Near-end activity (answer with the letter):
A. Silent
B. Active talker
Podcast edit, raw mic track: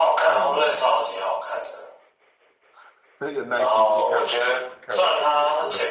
B